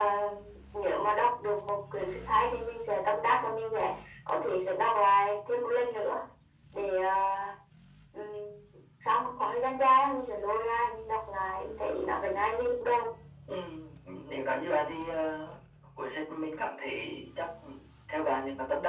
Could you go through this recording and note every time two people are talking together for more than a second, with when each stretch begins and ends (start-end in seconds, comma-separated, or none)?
none